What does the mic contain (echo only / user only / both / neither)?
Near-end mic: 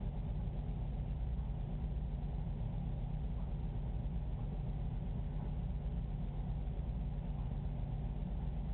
neither